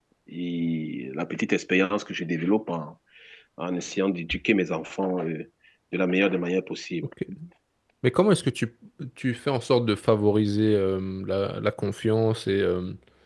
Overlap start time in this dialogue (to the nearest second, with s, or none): none